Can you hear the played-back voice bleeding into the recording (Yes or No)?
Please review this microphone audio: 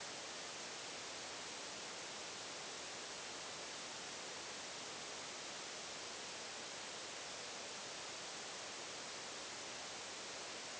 No